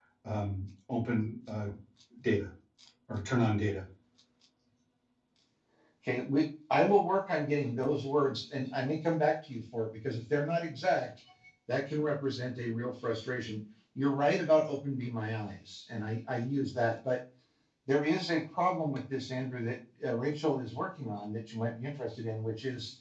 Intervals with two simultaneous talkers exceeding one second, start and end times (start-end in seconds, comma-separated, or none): none